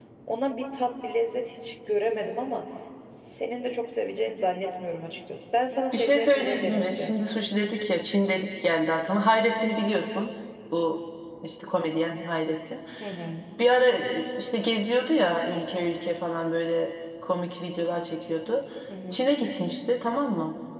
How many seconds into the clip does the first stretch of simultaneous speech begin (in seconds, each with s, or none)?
5.9 s